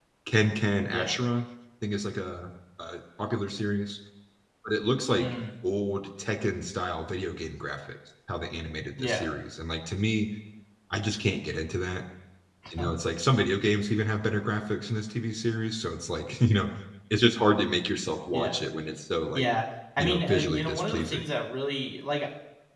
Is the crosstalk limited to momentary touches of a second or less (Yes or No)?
No